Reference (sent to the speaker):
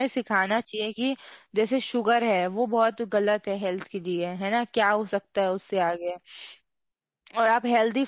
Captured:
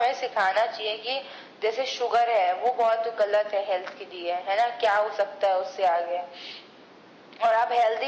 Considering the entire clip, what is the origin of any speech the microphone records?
echo only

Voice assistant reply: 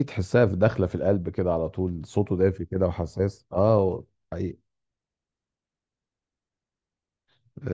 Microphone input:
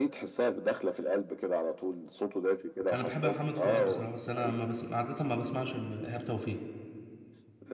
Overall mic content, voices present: both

